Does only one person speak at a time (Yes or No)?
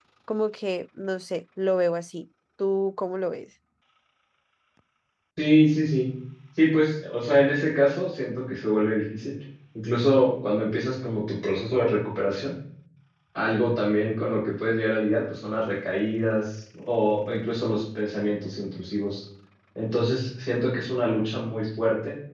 Yes